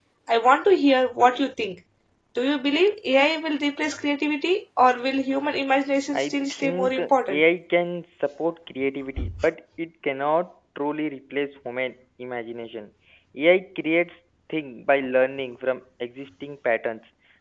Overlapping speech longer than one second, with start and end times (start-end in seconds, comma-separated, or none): 6.1-7.4